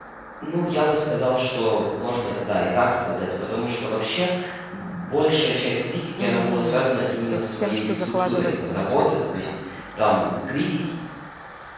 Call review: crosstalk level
present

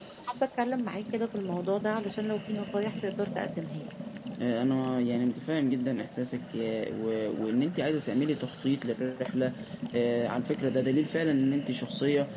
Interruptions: none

